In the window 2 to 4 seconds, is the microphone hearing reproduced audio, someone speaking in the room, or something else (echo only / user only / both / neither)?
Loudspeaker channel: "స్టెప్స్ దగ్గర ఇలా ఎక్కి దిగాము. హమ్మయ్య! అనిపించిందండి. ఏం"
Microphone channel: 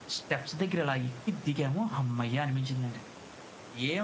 echo only